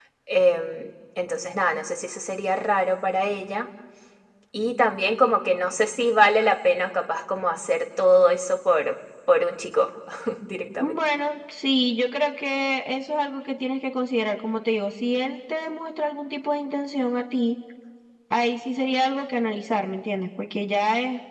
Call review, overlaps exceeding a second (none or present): none